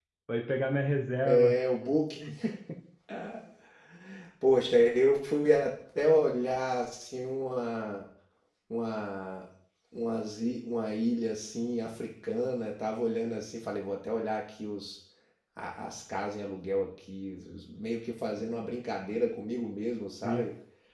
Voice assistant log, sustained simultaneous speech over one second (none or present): none